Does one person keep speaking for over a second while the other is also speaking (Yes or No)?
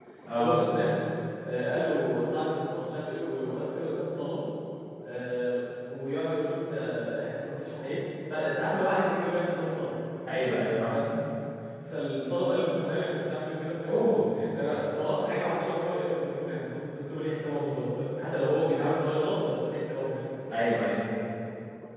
No